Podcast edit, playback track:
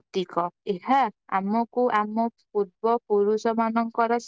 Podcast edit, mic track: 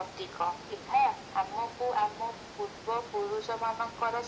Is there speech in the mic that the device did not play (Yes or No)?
No